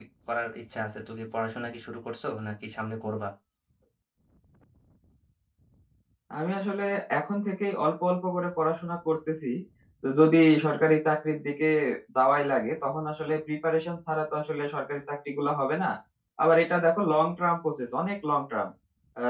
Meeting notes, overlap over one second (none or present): none